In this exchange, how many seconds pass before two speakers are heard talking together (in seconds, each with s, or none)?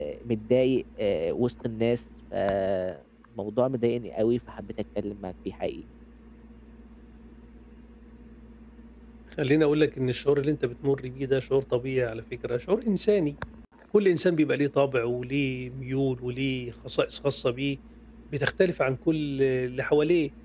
none